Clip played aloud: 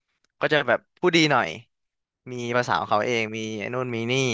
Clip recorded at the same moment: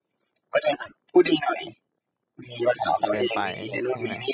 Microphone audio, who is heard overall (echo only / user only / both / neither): both